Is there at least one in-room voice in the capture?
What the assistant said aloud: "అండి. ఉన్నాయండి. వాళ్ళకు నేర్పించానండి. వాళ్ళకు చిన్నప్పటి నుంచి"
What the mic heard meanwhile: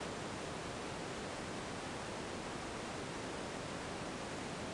No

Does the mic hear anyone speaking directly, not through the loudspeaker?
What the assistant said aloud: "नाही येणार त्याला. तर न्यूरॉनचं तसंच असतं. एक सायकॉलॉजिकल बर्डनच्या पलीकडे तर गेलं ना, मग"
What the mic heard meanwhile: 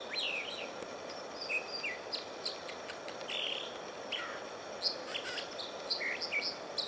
No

